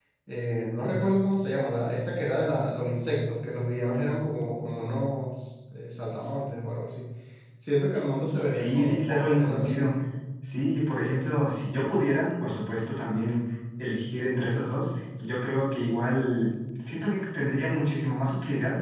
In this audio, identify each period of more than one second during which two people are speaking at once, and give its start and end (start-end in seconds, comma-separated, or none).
8.5-9.9